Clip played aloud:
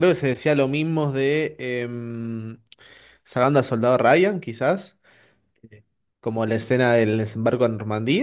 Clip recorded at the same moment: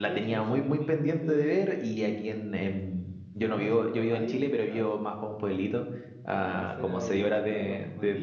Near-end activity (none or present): present